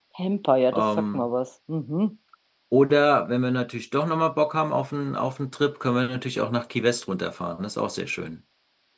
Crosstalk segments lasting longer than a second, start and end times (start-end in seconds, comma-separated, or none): none